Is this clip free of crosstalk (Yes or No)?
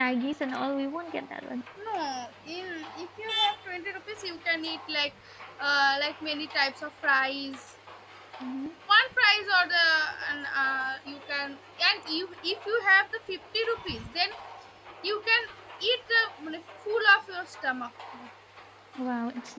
Yes